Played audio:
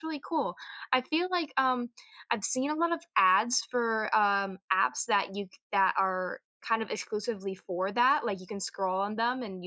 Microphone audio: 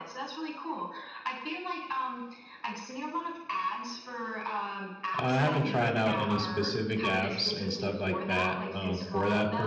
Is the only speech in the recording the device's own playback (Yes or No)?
No